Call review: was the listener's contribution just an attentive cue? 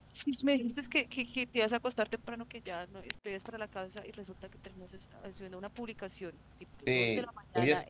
No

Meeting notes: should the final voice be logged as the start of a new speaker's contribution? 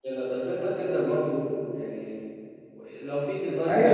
Yes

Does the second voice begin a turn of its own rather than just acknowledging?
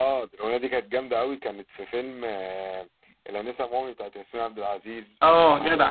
Yes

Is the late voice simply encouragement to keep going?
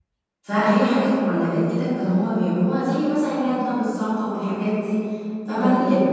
Yes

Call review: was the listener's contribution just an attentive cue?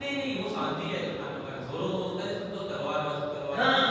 No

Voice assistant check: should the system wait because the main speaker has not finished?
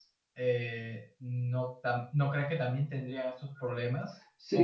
No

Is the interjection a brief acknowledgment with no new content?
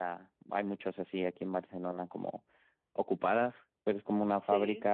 Yes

